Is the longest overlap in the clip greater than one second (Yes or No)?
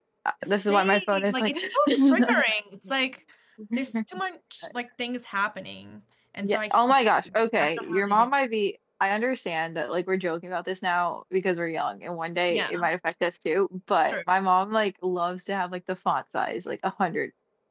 Yes